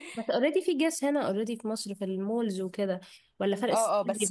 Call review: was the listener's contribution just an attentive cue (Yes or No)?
No